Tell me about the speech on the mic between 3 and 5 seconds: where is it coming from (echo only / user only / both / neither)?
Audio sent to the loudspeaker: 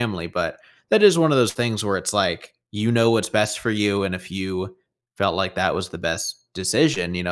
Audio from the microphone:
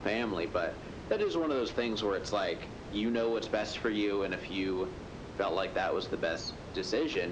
echo only